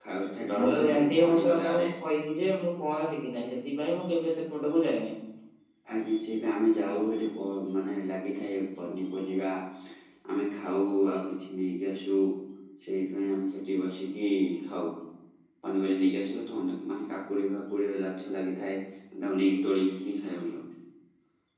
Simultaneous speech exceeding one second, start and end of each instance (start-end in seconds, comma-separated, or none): 0.6-1.9